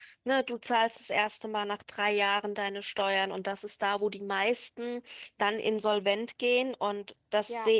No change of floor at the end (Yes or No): No